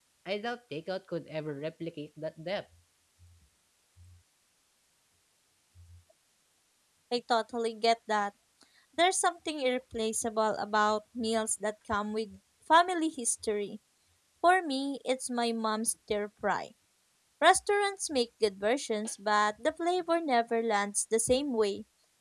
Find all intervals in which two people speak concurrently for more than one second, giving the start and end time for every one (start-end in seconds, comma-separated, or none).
none